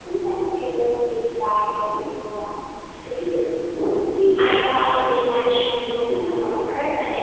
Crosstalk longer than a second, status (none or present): present